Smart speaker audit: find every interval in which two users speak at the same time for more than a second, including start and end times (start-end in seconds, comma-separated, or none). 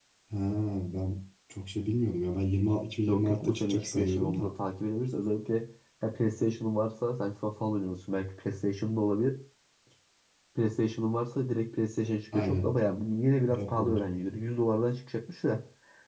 3.1-4.5